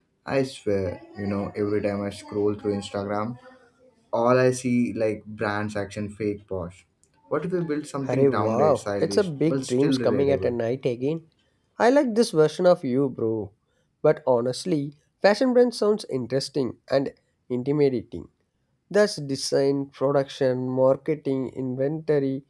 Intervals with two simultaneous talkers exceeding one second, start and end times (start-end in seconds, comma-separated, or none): 8.1-10.6